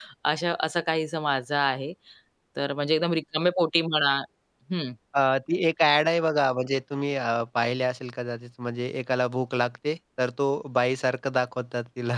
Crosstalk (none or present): none